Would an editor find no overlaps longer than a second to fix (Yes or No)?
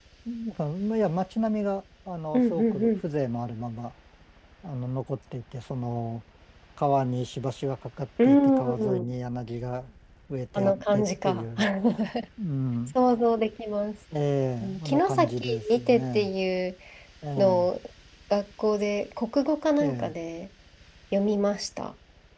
No